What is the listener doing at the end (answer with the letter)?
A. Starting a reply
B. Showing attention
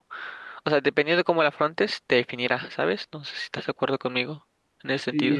A